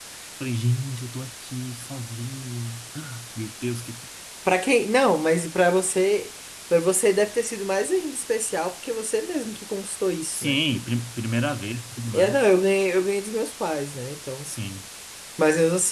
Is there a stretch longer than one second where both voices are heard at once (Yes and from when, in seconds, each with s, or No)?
No